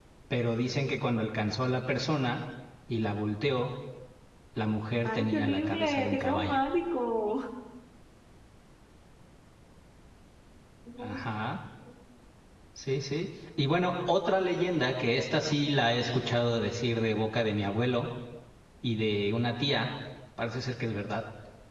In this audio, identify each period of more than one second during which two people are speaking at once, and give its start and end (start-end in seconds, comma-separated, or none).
5.0-6.7